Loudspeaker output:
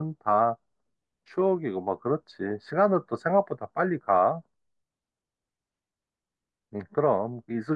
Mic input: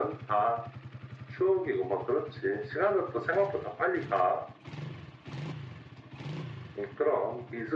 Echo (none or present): present